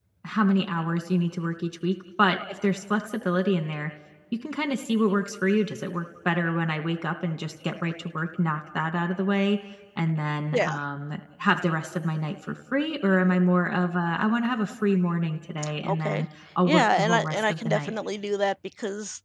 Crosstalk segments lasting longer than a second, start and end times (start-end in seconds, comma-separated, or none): 16.6-17.9